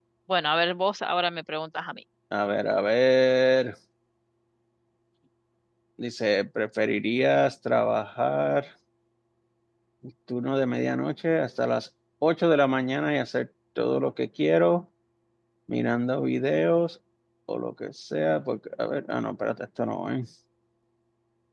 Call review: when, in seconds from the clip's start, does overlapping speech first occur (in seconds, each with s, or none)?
none